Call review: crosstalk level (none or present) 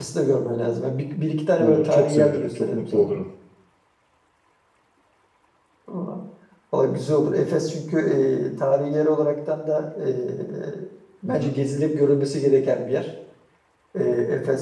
present